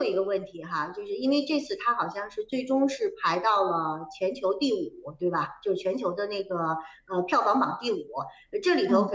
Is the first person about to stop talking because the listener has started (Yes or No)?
No